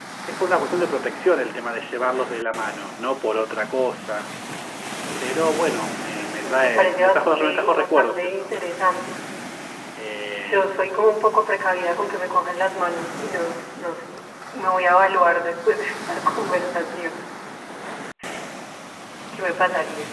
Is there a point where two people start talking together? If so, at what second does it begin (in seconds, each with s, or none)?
6.4 s